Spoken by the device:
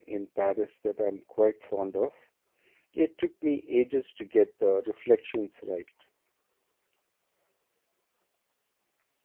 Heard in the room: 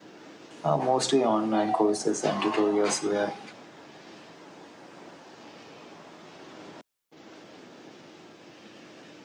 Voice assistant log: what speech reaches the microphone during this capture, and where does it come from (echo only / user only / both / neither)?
user only